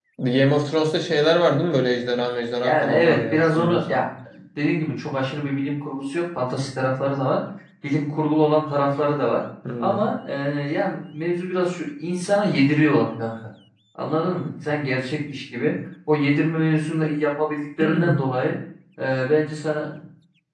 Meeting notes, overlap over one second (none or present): present